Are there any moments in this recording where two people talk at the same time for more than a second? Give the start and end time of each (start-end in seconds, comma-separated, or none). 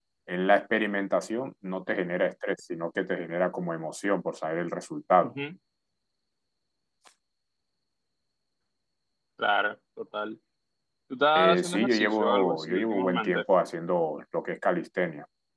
11.4-13.4